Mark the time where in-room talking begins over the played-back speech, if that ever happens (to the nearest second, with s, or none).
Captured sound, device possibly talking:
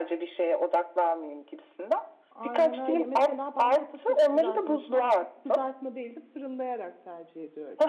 2 s